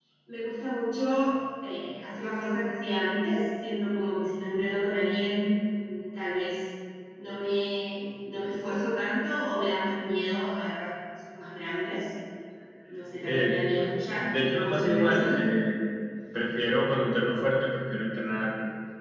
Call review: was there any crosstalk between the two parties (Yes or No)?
Yes